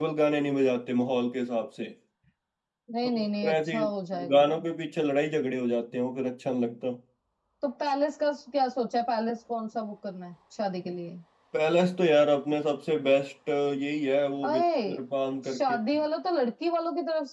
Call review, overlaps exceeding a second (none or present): present